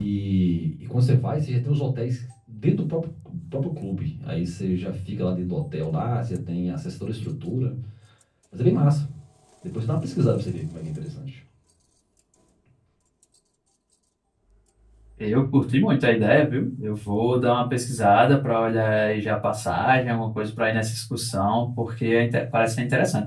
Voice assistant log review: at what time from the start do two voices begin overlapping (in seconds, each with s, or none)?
none